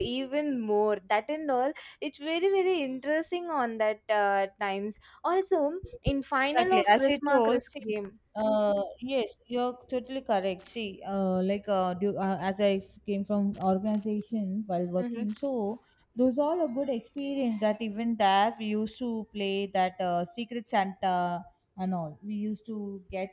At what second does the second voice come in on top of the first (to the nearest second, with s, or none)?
7 s